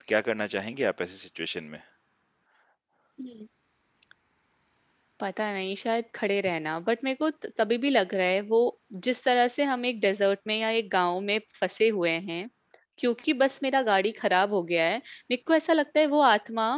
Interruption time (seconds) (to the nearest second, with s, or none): none